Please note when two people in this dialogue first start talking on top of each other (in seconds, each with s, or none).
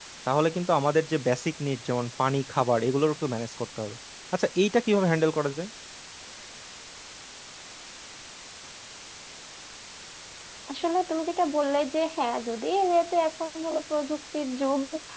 none